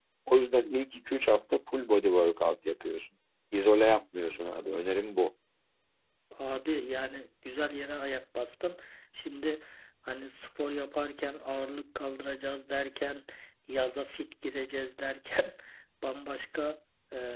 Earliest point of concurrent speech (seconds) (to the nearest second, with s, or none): none